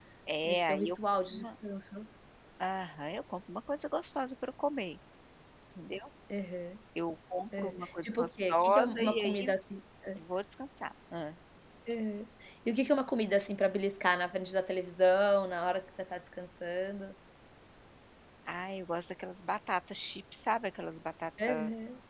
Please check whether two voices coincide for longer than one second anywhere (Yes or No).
Yes